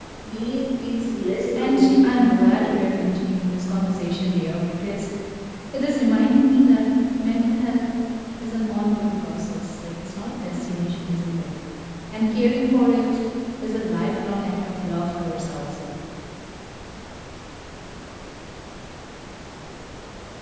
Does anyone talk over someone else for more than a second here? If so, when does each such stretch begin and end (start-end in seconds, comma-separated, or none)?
1.5-3.0